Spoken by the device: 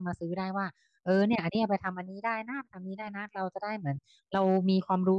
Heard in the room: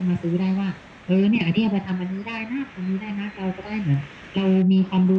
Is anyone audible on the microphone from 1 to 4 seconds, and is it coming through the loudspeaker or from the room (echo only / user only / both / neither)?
echo only